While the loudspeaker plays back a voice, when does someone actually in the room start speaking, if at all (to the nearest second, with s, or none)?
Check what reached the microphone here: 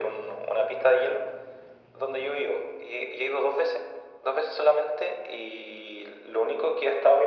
none